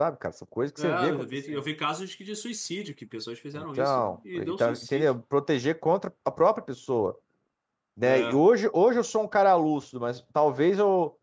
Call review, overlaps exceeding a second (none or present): present